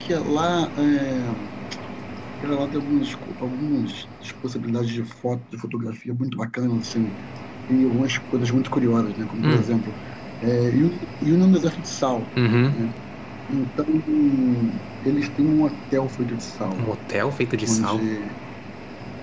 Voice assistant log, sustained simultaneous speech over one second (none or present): none